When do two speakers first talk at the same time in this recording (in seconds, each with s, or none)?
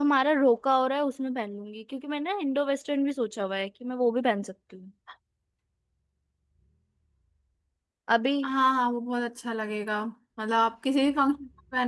none